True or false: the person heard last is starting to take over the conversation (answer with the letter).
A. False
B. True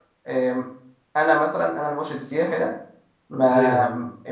A